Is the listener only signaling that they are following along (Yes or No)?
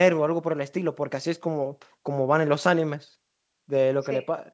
Yes